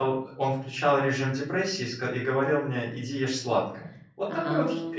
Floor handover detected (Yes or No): No